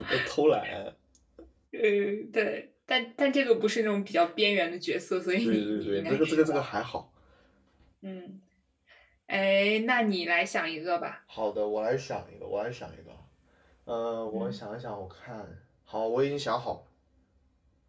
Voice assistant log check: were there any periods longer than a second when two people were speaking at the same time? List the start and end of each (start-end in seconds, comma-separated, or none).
5.4-6.7